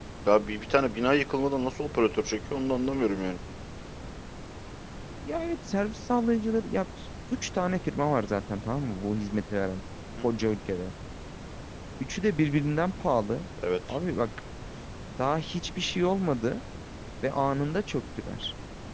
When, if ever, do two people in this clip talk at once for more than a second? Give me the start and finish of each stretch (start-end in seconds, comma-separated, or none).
none